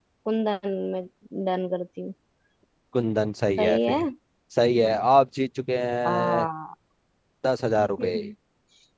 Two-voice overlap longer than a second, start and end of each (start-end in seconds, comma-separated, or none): none